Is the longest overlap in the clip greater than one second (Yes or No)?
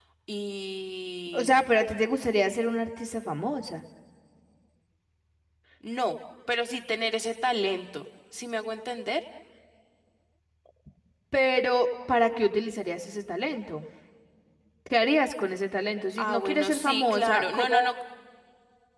Yes